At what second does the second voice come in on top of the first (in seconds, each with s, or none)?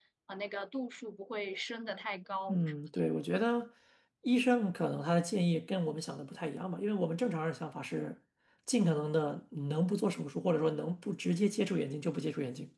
none